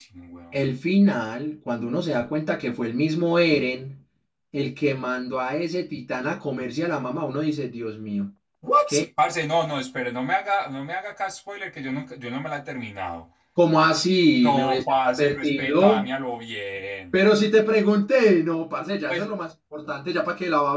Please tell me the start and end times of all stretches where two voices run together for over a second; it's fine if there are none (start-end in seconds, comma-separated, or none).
14.4-16.1